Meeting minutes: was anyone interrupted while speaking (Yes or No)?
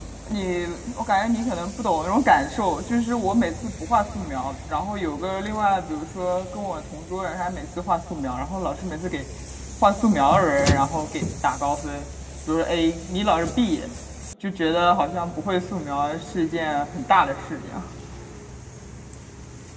No